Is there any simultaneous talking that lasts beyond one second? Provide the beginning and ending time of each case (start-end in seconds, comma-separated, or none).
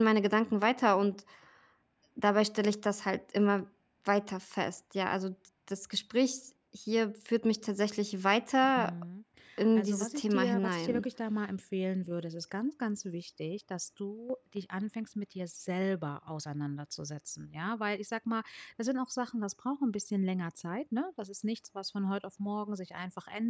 9.8-11.0